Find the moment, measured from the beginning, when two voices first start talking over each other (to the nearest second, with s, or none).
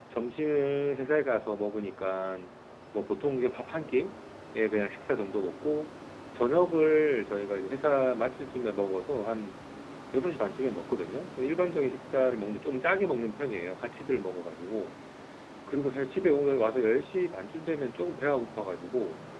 none